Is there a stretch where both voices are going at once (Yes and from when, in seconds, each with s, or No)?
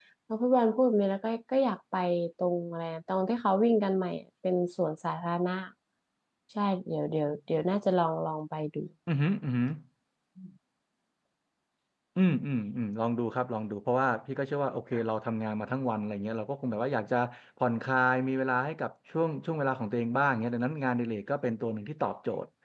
No